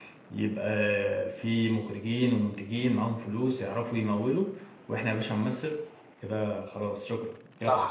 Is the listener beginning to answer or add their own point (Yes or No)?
Yes